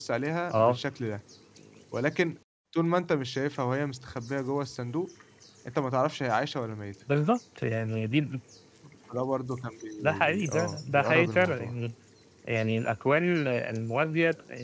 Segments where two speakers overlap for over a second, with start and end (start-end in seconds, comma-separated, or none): 10.0-11.8